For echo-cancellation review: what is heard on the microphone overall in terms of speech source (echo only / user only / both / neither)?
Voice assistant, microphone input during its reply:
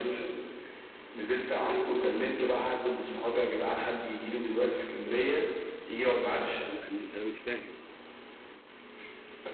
both